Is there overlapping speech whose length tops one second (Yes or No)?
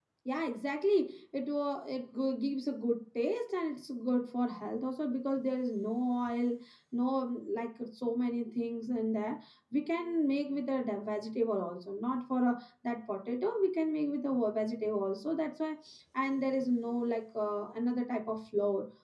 No